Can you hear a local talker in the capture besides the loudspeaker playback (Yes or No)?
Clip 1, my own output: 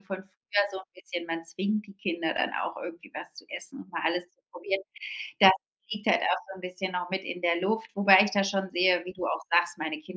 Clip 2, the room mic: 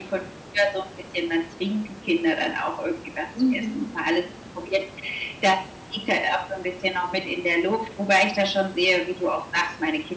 Yes